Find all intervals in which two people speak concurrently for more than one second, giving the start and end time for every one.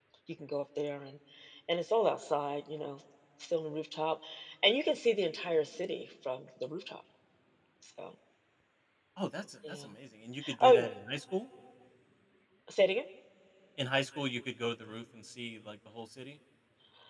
none

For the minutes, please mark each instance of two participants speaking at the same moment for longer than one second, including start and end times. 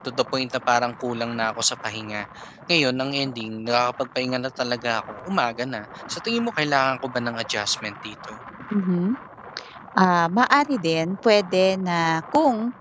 none

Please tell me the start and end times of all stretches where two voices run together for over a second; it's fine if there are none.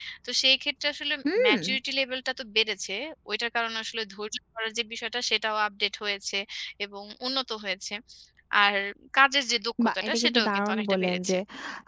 9.8-11.4

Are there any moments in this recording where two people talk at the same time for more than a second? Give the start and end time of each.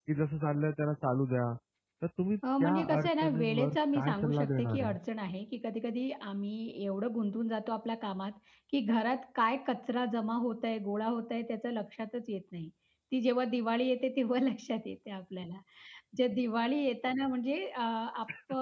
2.6-4.9

